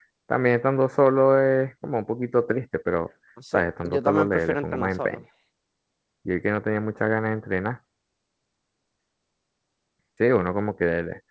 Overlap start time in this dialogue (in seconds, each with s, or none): 3.4 s